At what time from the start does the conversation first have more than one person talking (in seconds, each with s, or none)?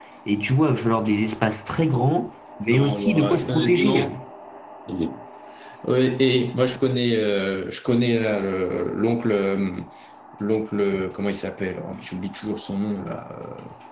2.6 s